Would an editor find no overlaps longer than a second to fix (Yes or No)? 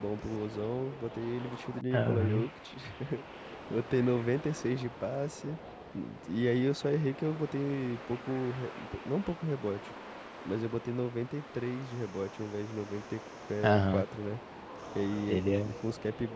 Yes